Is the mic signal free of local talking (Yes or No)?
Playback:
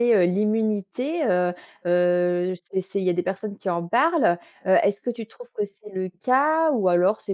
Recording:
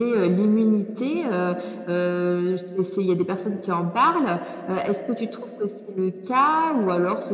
Yes